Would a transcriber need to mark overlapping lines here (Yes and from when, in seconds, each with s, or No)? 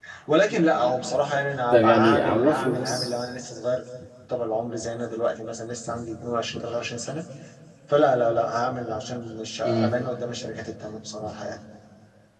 Yes, from 1.7 s